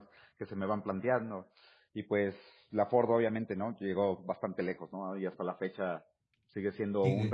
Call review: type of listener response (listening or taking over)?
listening